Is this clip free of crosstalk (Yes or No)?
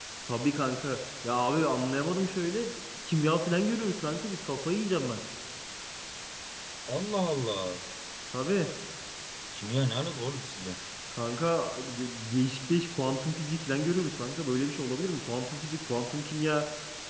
Yes